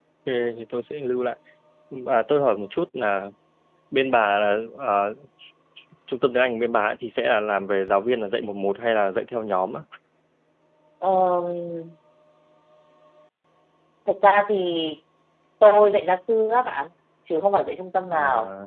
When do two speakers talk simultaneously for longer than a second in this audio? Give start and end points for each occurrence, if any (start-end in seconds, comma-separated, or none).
none